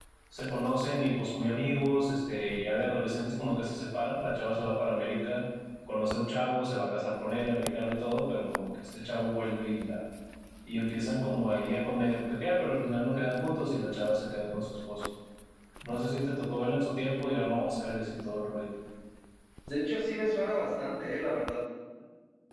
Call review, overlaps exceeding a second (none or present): none